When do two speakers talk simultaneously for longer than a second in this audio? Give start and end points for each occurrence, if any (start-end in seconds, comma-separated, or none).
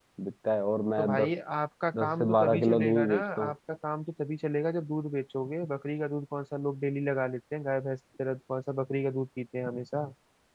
1.9-3.5